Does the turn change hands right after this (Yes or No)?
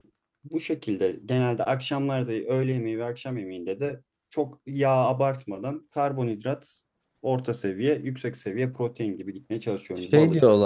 Yes